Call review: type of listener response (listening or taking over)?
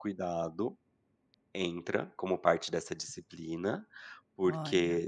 listening